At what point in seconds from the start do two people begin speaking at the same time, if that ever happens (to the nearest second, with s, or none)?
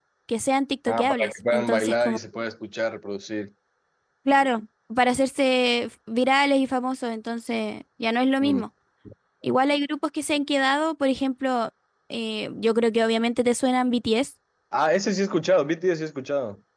1 s